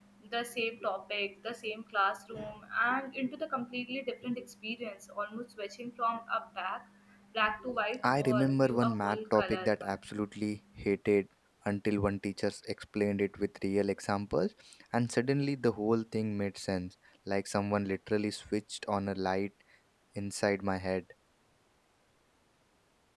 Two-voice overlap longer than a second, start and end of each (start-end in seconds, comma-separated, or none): 8.0-10.0